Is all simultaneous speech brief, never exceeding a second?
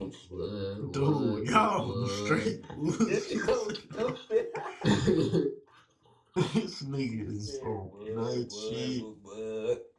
No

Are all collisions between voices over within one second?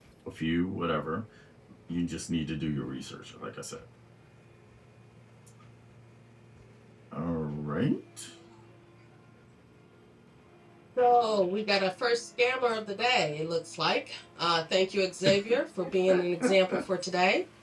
Yes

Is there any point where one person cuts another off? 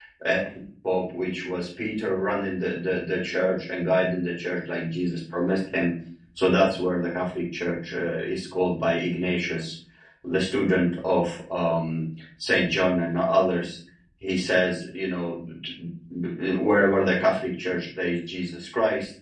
No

